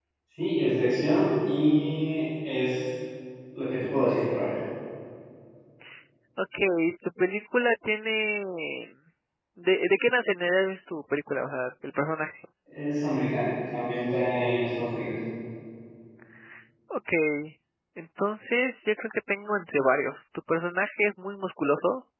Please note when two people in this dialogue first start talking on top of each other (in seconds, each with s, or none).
none